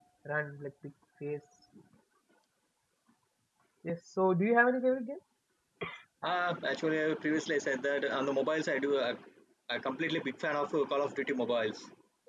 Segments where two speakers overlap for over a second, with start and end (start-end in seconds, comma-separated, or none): none